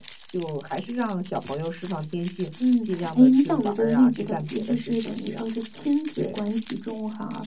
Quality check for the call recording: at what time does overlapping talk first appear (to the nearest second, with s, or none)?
3 s